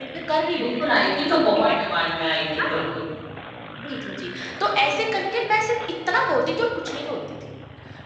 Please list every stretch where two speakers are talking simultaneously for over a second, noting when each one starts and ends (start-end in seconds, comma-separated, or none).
none